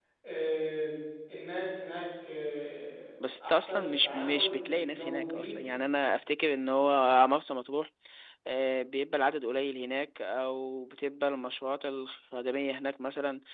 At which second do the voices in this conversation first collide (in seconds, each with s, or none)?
3.2 s